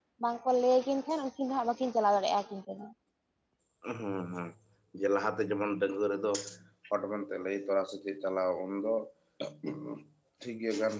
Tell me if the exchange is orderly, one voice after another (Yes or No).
Yes